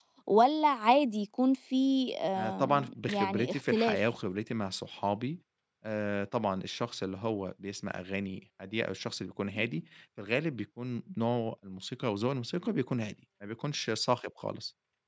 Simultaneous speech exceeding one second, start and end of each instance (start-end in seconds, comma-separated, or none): 2.4-4.0